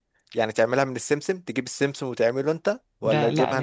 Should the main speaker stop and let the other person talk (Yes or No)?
Yes